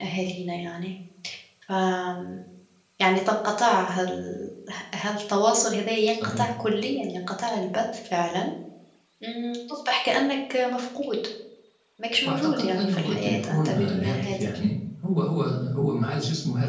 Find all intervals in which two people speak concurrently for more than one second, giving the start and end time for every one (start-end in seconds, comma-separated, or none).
12.2-14.5